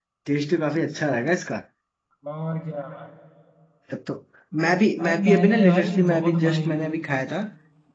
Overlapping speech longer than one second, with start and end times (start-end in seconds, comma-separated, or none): 5.0-7.0